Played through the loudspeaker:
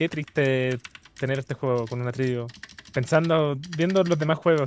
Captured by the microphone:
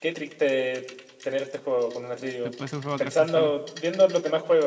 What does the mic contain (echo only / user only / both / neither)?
both